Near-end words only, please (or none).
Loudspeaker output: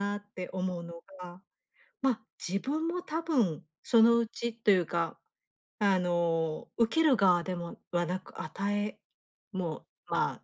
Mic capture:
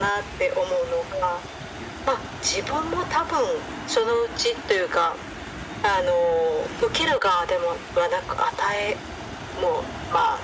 none